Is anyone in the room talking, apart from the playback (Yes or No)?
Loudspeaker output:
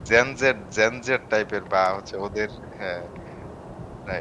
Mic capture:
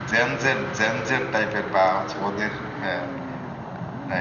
No